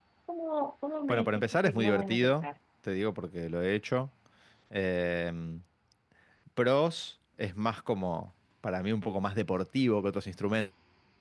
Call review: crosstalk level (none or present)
present